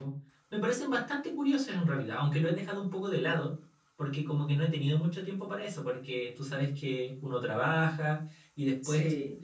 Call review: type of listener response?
listening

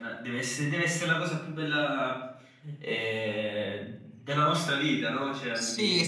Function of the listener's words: taking over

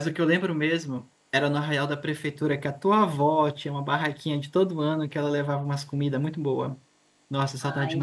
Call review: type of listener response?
taking over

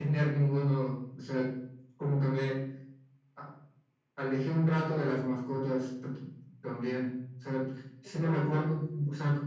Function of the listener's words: listening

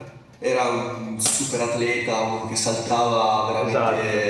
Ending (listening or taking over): listening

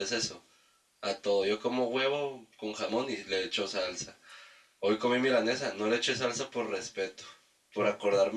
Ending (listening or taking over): listening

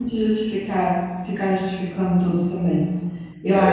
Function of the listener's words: listening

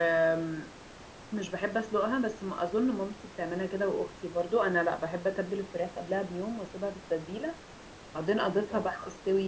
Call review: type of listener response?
listening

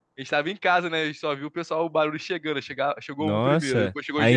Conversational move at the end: taking over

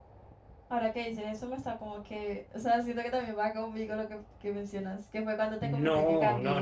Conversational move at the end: taking over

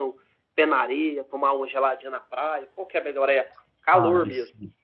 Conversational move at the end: taking over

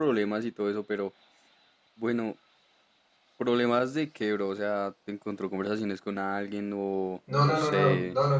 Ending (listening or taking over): taking over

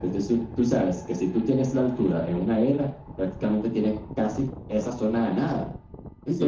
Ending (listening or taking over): taking over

